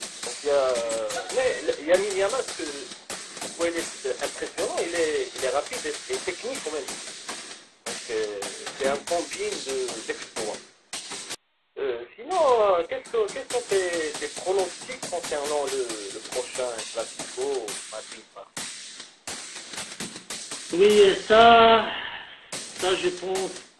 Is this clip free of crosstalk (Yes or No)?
Yes